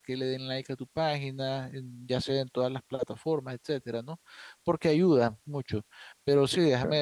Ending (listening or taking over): listening